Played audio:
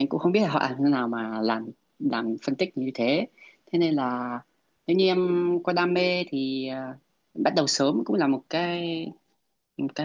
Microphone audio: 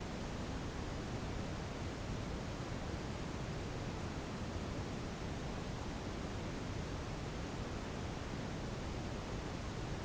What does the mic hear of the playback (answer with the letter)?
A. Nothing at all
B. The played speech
A